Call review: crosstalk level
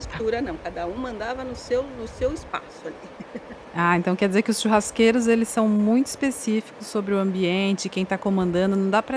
none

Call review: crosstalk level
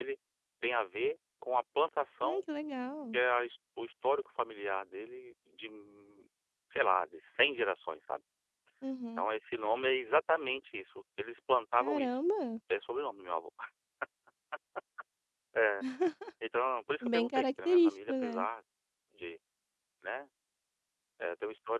present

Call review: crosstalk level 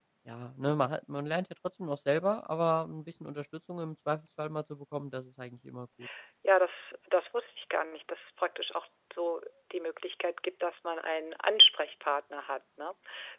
none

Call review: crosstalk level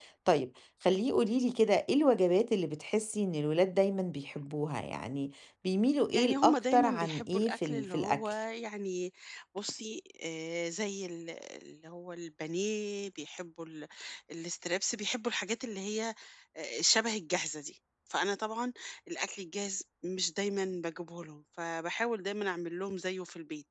present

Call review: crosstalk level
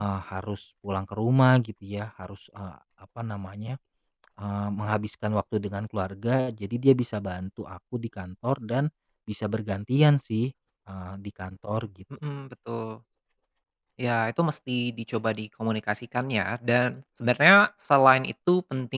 none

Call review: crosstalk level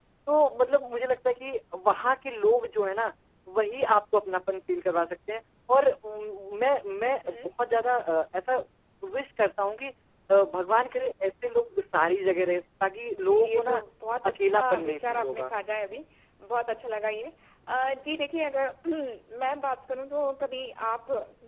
present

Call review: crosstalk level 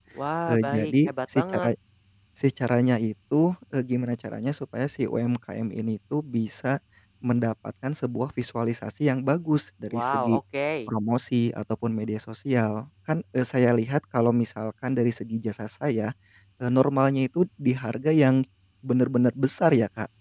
present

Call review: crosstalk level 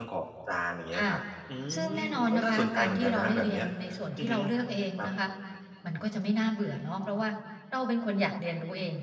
present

